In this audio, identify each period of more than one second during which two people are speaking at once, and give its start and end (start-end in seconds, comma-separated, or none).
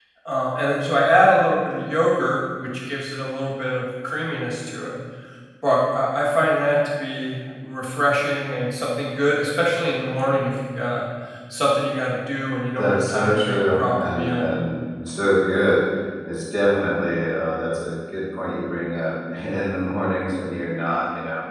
12.8-14.5